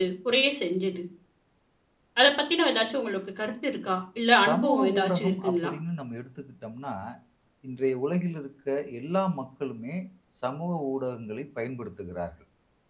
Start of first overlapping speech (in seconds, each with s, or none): 4.5 s